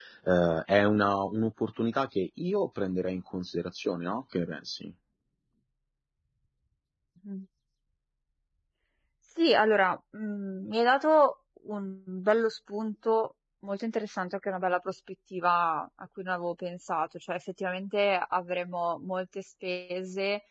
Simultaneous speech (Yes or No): No